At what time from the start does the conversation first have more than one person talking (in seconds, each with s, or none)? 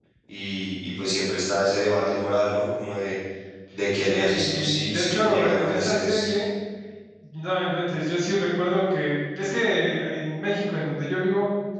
4.0 s